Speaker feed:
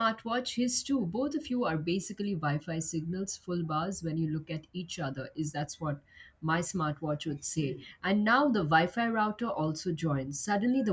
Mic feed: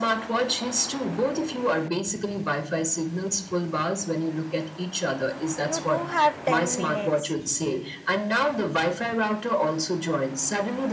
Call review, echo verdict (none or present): present